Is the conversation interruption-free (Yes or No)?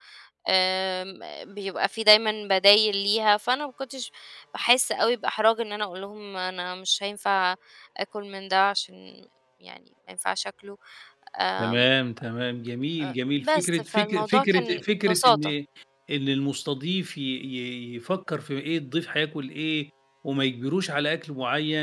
No